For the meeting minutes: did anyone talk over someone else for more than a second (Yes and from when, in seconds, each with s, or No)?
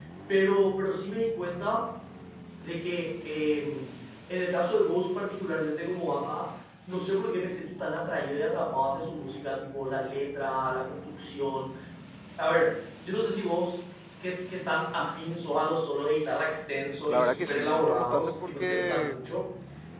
Yes, from 17.1 s